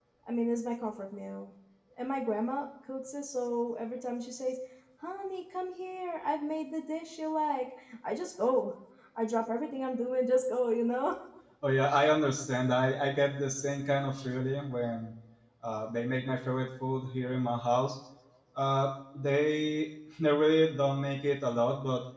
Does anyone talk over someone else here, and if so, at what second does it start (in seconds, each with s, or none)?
none